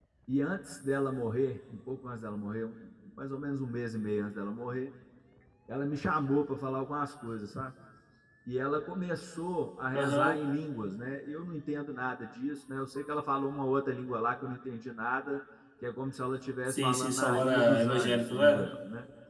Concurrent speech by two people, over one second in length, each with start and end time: 16.7-18.7

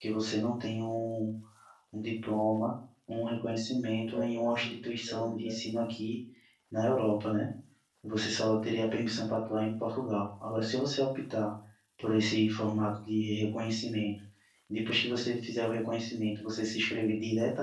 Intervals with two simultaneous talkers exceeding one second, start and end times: 4.0-5.6

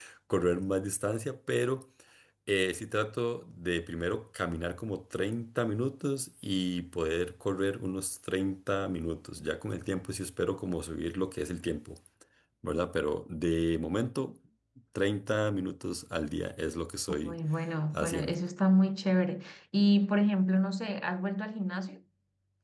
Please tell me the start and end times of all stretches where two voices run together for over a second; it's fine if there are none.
none

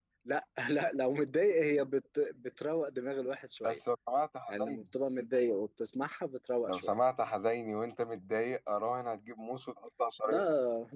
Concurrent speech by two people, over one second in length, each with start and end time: none

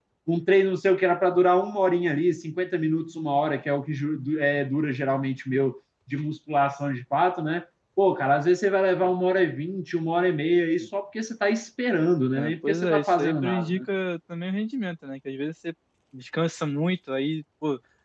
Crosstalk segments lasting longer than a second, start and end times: 12.4-13.8

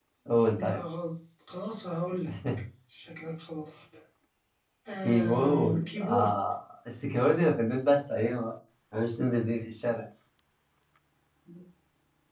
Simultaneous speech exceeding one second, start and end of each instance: 5.0-6.3

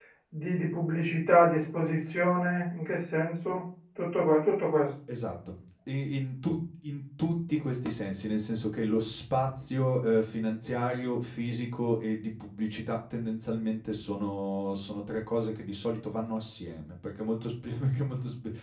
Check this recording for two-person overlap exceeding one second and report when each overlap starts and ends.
none

